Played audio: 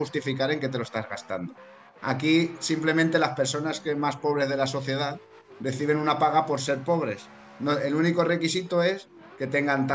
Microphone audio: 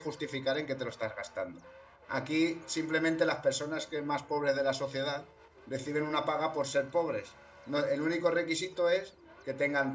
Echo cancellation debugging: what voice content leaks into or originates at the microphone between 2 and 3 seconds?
echo only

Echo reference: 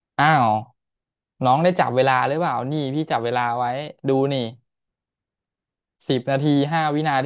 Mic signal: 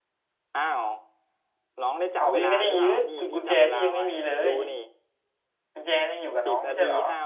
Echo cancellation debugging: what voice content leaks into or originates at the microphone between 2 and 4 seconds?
both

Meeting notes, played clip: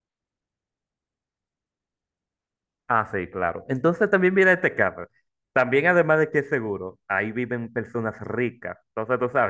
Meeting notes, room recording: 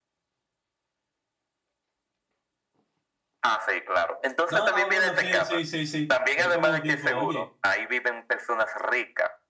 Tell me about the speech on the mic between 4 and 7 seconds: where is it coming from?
both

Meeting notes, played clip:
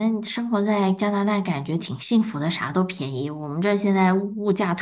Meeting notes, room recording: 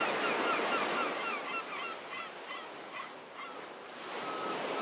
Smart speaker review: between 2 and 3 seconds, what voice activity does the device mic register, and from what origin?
neither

